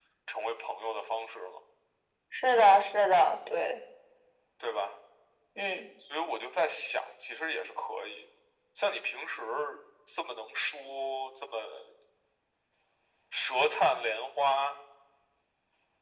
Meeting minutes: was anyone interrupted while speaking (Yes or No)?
No